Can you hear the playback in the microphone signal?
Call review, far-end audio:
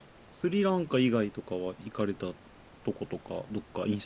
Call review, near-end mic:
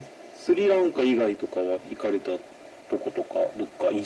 Yes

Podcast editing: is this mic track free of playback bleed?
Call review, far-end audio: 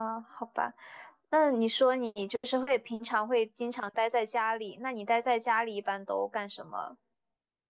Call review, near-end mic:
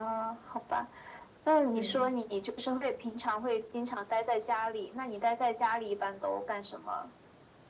No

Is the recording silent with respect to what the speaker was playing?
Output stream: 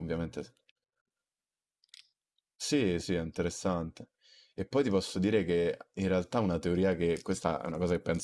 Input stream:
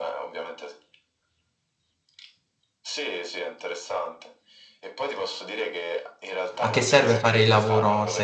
No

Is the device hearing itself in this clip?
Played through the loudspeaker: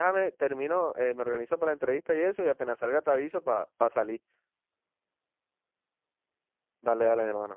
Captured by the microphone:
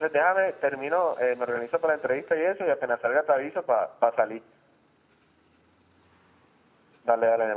Yes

